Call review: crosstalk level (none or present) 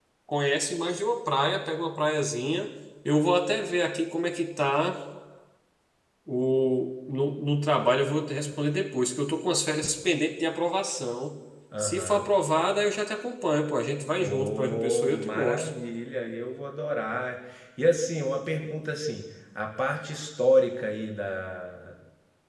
present